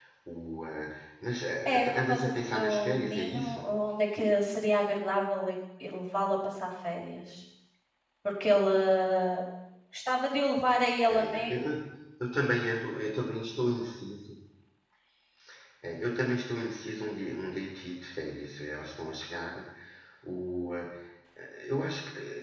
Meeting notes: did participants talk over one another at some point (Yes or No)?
Yes